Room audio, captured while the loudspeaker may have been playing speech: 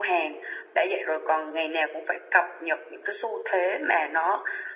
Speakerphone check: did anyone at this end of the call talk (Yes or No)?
No